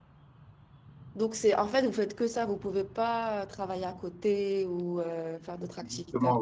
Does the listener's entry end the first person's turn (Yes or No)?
Yes